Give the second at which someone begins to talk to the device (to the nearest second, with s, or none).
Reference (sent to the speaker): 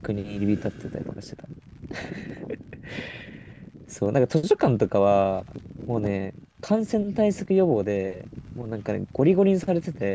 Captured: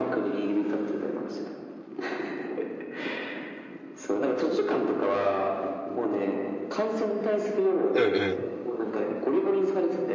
8 s